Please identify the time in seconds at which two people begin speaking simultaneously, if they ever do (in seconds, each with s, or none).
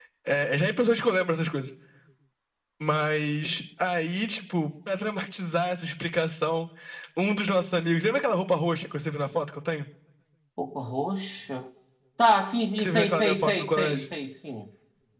12.8 s